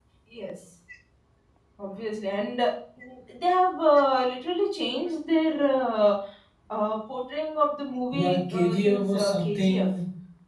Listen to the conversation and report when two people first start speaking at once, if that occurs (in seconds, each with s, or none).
8.1 s